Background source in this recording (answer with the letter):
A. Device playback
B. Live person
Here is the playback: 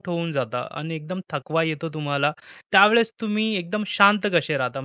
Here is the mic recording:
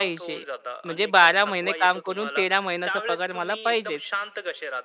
A